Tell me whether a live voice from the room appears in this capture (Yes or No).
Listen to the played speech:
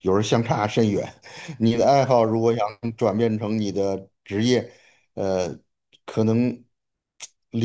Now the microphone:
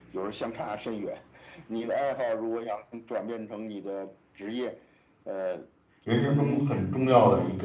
Yes